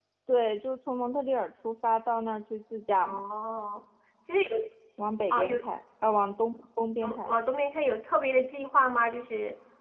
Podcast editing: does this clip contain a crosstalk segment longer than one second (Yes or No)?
No